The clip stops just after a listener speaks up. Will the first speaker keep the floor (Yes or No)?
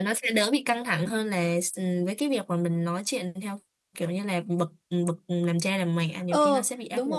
No